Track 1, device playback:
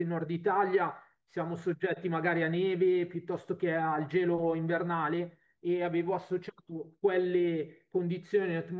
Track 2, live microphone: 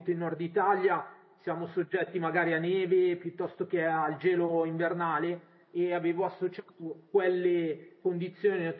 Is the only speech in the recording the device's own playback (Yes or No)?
Yes